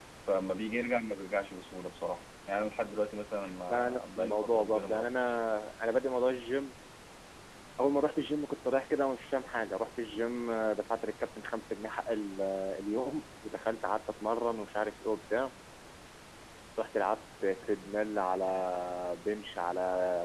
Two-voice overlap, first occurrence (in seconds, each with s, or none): 3.4 s